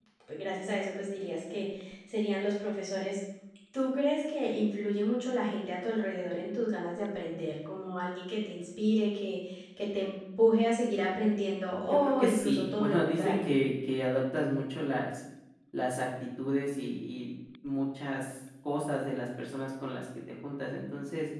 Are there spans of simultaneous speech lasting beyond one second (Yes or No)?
Yes